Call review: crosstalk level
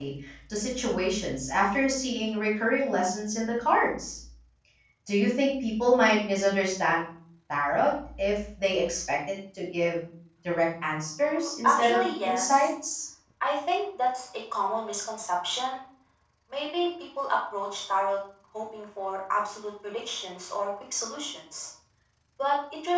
present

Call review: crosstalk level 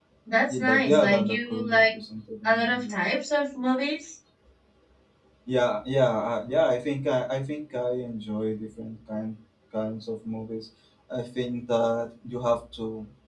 present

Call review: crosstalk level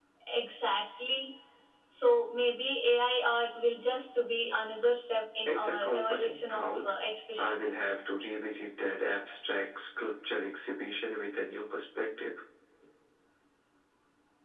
present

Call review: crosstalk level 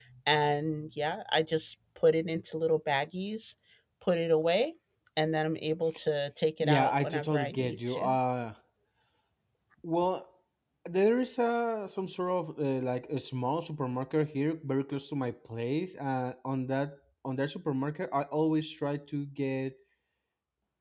present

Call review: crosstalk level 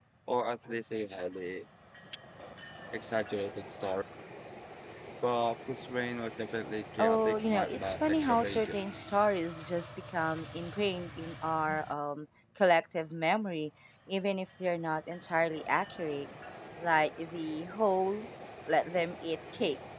present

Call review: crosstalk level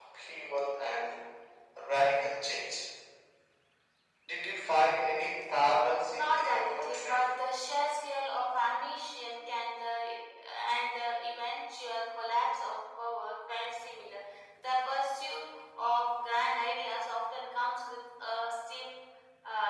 present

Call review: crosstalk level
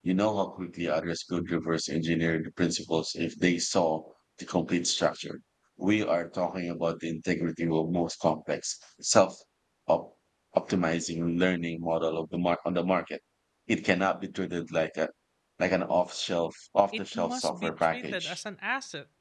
present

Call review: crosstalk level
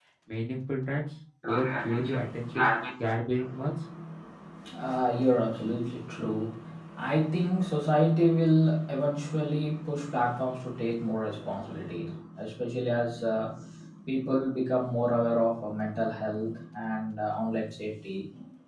present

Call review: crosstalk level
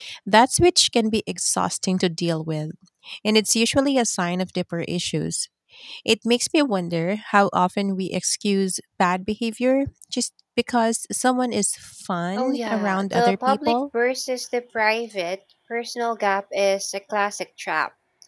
present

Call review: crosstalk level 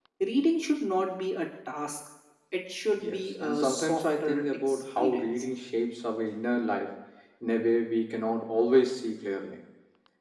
present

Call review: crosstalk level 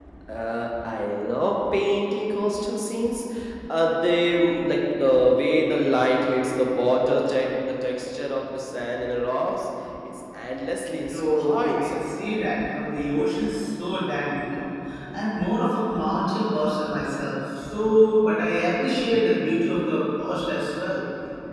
present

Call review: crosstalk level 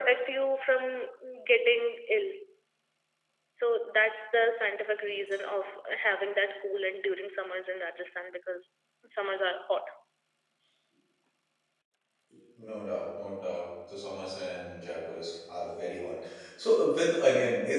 none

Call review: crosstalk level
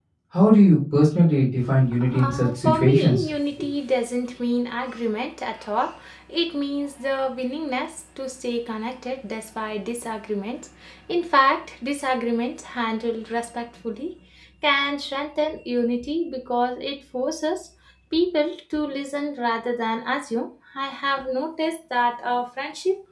present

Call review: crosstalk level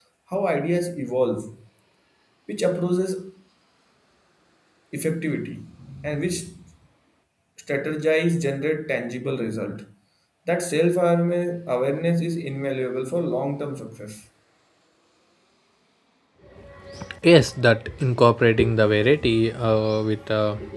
none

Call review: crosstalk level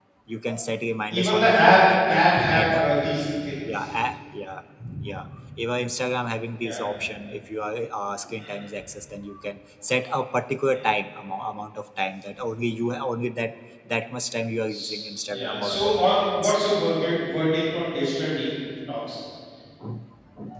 present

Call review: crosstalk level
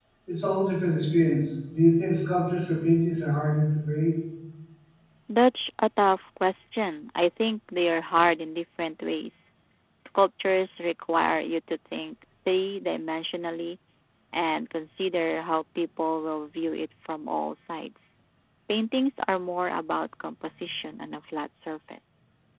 none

